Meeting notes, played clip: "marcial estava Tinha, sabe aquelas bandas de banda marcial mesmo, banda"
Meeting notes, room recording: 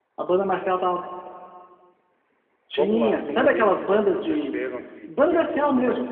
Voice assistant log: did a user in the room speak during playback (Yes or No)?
Yes